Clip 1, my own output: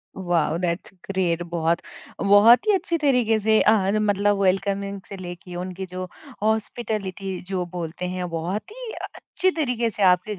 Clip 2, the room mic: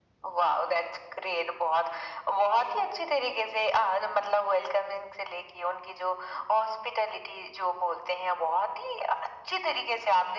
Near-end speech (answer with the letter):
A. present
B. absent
B